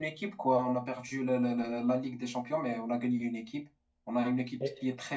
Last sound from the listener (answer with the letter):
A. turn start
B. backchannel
B